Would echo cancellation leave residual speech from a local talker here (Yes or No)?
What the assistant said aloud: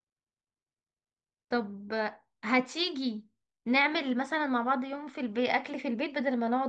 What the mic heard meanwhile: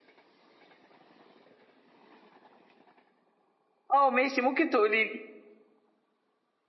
Yes